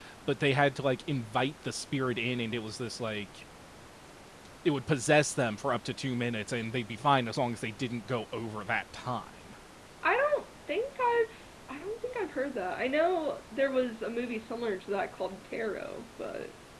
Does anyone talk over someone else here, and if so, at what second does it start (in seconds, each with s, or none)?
none